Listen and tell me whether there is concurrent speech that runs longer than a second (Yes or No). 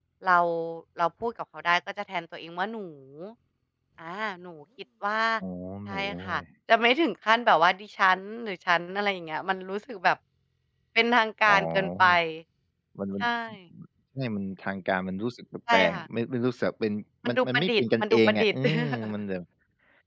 Yes